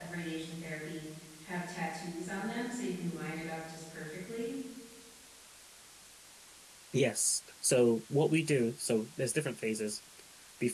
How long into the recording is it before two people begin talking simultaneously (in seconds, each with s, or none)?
none